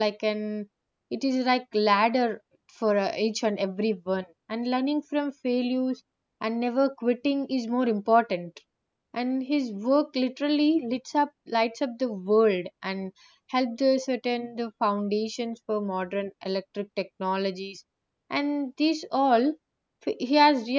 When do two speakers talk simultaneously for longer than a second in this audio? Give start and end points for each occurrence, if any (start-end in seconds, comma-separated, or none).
none